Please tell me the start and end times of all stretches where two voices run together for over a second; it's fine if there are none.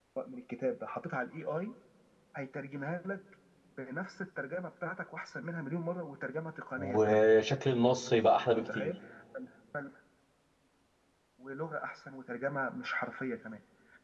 none

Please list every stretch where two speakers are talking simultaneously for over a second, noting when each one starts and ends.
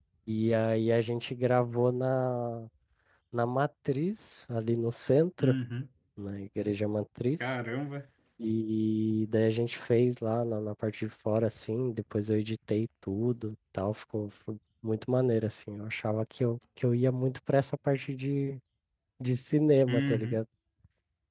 none

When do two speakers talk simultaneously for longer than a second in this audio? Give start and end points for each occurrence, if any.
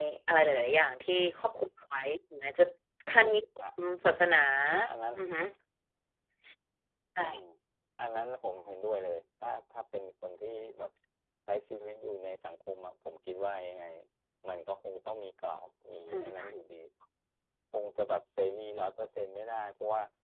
none

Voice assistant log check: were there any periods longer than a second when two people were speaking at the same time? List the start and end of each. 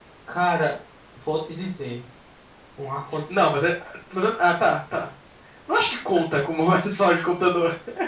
none

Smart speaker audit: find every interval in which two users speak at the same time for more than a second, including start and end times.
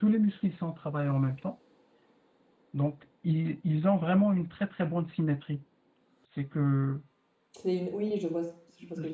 none

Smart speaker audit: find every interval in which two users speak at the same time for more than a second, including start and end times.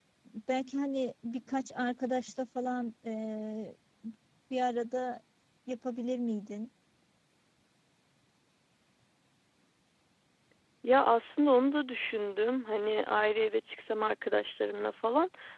none

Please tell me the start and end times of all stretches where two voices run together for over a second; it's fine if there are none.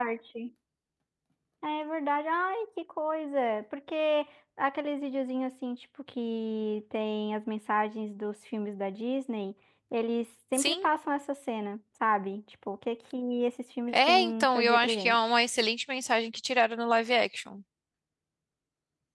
13.9-15.3

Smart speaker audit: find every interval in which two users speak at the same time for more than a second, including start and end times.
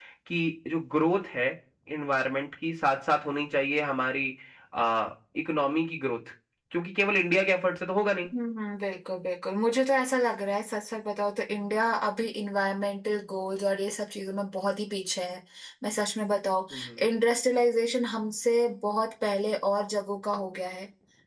none

